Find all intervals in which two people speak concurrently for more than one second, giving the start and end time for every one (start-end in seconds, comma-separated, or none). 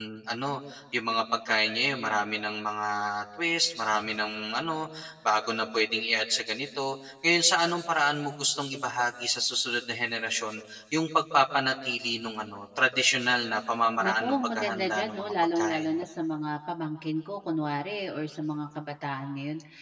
14.0-15.9